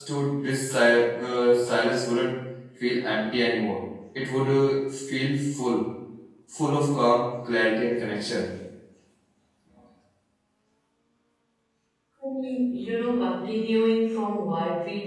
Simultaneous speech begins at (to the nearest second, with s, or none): none